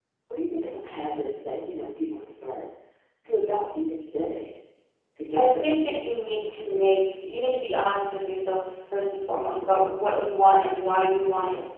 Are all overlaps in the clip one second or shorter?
No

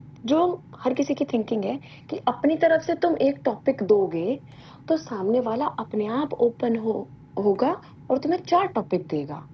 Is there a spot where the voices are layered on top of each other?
No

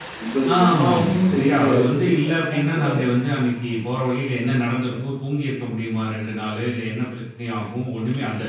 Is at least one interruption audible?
Yes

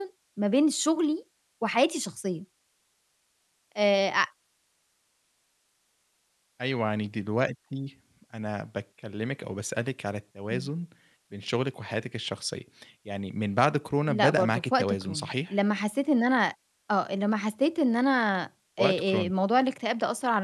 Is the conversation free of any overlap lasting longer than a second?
No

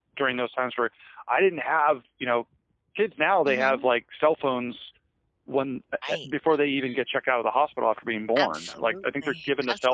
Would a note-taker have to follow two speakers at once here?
Yes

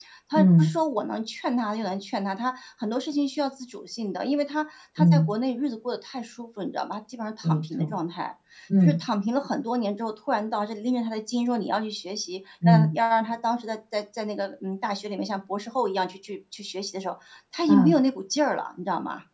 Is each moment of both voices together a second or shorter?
Yes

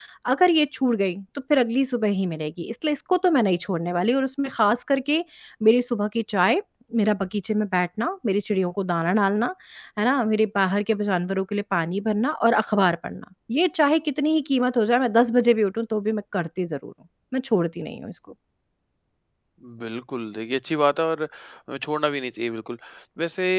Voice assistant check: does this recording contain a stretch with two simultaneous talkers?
No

